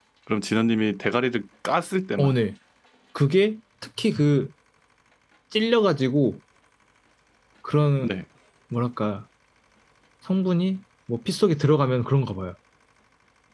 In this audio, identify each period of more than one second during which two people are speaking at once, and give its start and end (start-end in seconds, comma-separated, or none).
none